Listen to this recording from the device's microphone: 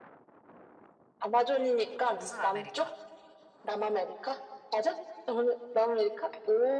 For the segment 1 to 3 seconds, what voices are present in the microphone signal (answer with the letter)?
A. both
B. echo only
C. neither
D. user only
A